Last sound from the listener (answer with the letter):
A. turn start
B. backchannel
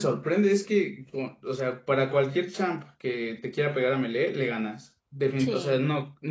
B